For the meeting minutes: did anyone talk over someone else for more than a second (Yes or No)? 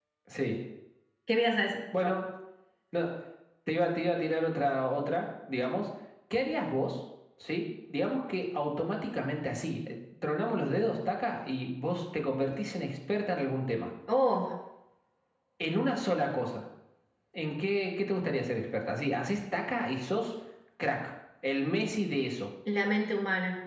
No